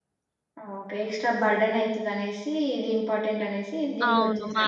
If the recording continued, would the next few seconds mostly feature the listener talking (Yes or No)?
Yes